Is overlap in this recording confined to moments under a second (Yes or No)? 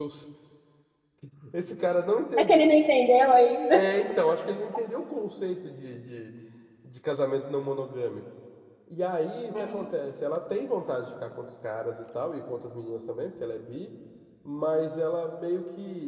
Yes